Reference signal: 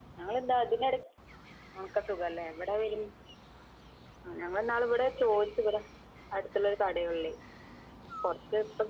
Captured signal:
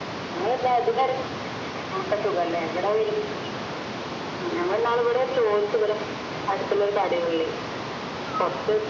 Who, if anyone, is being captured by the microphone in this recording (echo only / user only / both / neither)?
echo only